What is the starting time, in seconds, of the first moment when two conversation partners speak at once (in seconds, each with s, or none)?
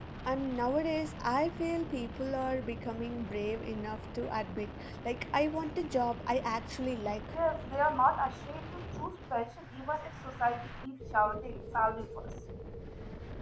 none